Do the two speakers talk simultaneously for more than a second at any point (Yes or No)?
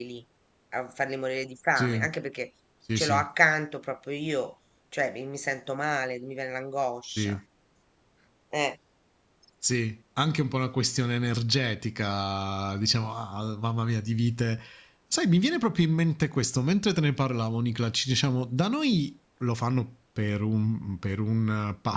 No